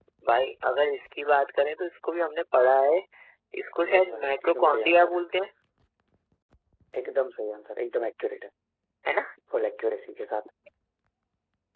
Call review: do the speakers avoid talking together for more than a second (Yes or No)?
No